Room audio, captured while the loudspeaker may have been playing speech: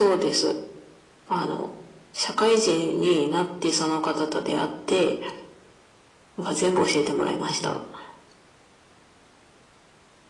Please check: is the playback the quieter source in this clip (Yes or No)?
No